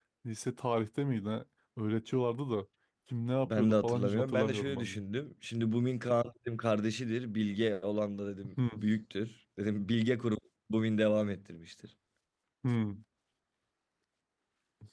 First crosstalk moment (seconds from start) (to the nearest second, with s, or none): 3 s